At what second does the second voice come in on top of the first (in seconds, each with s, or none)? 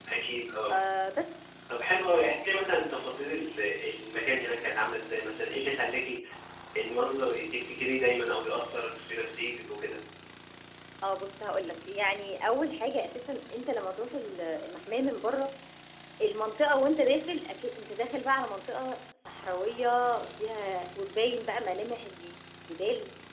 none